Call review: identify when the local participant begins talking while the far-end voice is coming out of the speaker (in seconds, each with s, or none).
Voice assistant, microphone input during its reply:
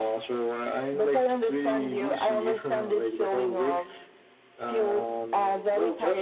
none